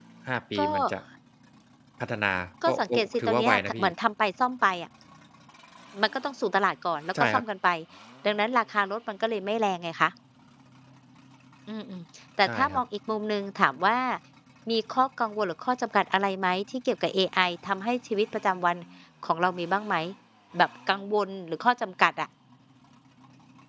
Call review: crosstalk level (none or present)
present